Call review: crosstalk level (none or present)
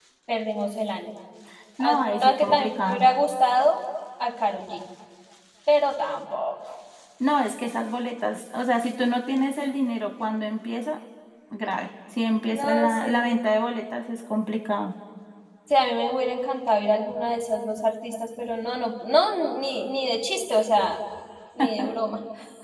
present